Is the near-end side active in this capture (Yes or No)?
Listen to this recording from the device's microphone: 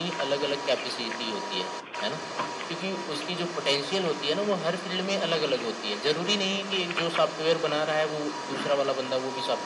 No